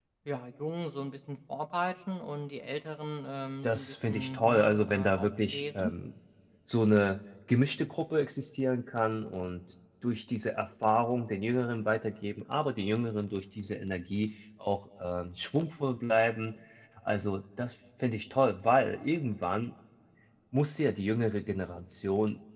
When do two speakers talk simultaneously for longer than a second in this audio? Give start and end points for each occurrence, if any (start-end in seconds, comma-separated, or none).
3.6-5.9